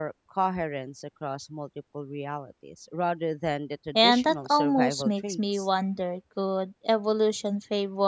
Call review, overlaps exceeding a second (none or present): present